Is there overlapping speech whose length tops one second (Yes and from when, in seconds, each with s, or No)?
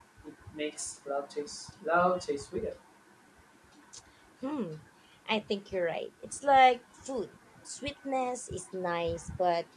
No